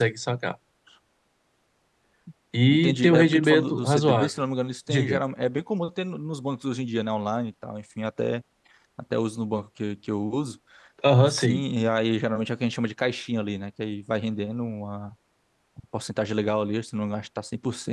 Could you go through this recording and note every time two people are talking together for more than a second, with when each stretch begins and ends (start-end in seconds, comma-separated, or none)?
2.7-4.3